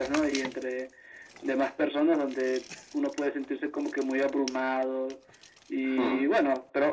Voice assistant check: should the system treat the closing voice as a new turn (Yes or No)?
No